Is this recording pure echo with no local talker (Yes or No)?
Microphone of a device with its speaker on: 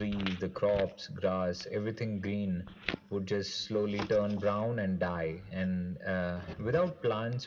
Yes